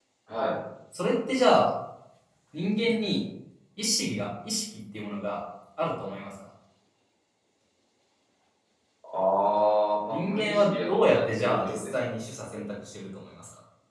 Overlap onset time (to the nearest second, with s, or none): 10 s